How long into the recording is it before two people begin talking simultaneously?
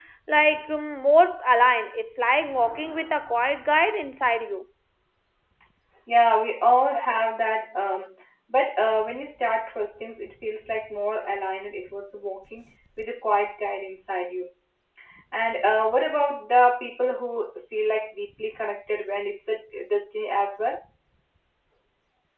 none

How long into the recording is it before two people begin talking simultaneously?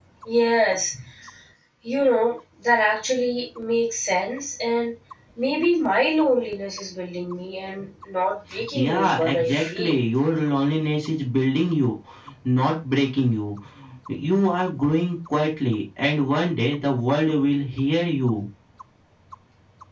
9 s

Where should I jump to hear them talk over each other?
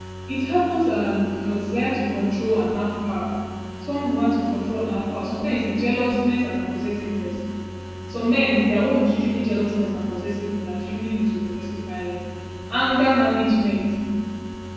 none

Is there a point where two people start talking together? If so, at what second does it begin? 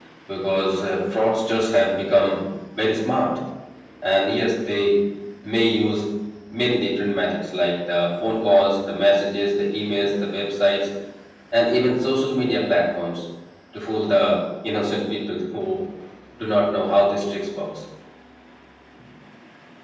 none

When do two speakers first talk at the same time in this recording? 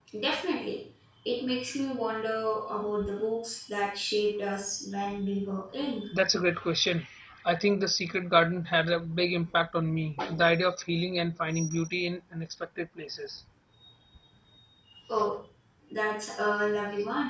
none

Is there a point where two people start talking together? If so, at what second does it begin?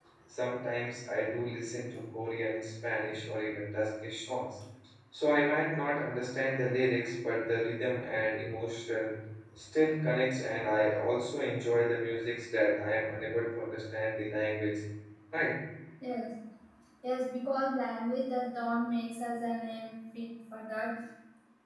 none

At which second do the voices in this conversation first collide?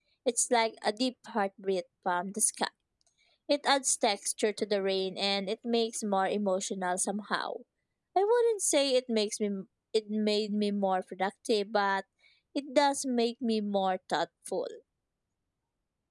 none

